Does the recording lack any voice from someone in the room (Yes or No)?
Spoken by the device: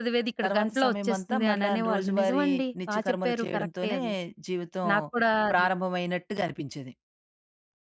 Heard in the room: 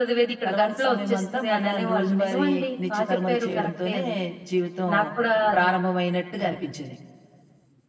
Yes